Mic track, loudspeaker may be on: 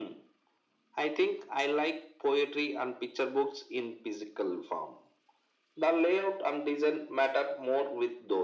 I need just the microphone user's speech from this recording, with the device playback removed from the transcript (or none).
none